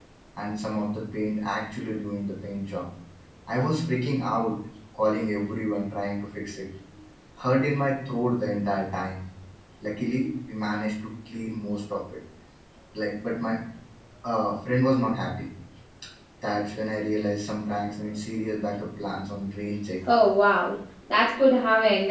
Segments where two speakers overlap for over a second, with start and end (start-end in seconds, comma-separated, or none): none